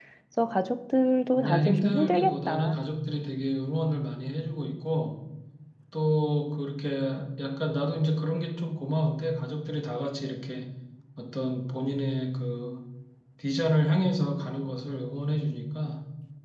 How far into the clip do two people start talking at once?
1.4 s

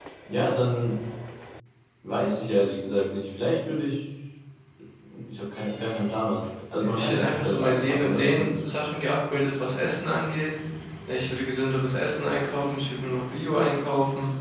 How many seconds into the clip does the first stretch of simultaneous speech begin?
6.7 s

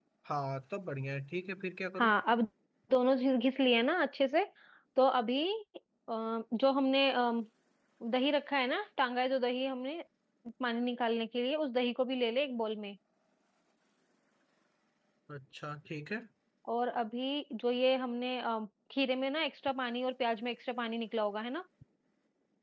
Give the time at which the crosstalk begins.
none

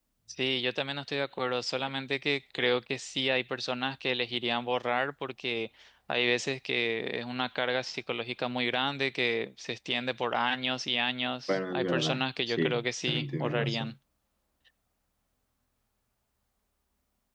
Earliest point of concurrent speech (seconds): 11.5 s

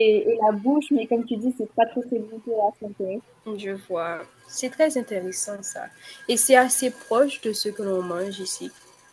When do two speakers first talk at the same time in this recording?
none

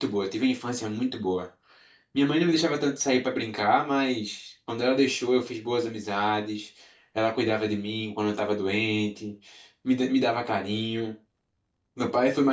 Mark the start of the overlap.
none

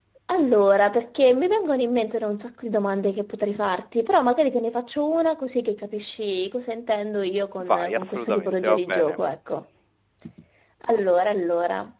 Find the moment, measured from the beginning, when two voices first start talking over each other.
7.6 s

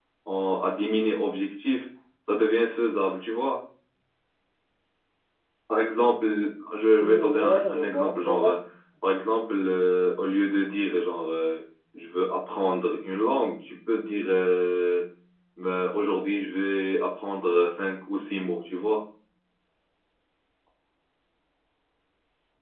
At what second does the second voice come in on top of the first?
7.0 s

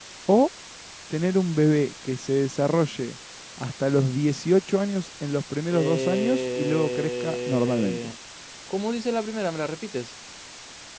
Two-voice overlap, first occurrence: 5.7 s

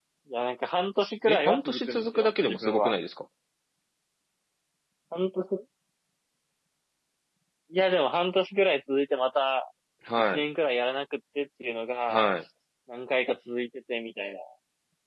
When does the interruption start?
1.3 s

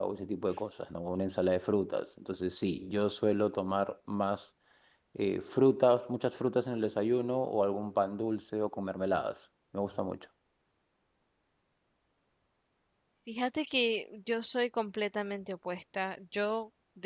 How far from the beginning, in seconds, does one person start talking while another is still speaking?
none

